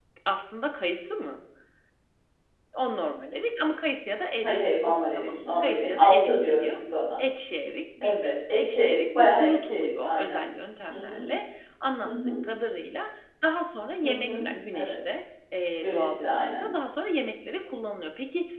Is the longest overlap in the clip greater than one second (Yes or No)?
Yes